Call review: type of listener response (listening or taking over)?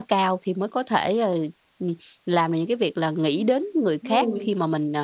listening